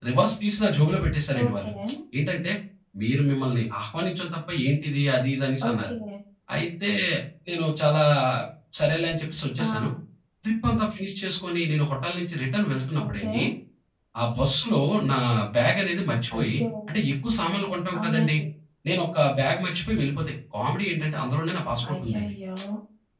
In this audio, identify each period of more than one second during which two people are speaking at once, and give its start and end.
none

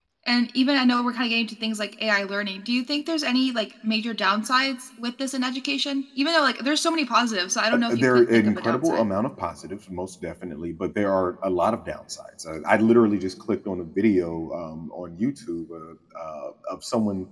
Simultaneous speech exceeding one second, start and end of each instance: 7.7-9.0

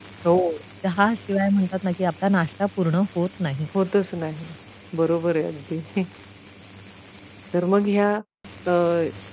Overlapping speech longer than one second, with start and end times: none

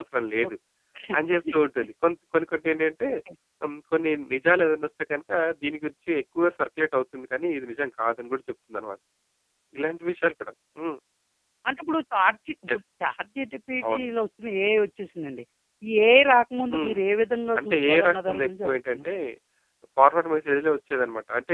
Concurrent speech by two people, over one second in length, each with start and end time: 17.6-19.1

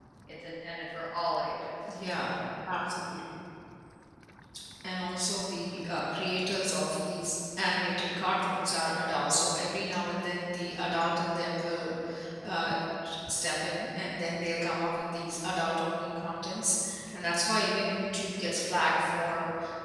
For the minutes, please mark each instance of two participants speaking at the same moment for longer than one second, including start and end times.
none

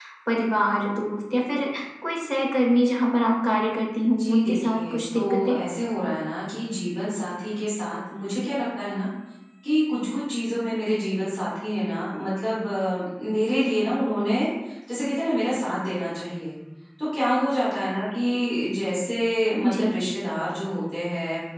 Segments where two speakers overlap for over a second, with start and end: 4.1-5.5

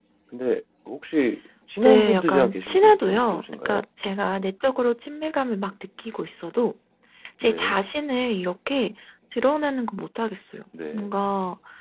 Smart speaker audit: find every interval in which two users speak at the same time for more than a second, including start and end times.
1.8-3.8

